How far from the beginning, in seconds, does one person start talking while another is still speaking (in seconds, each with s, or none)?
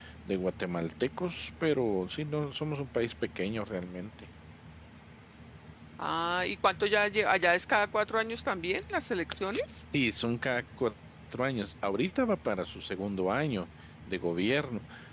none